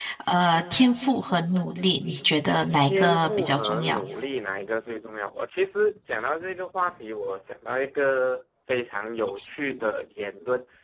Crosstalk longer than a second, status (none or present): present